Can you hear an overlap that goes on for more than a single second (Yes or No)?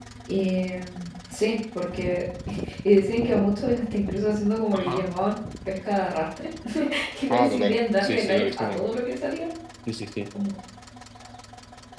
Yes